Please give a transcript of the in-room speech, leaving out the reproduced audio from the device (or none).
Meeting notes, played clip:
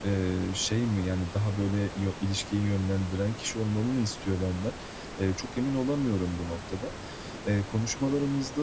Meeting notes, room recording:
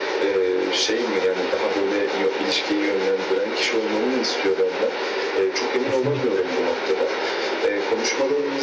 Kesinlikle.